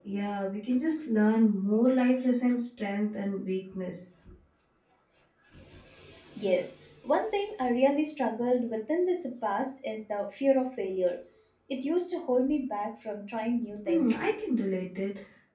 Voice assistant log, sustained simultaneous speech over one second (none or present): none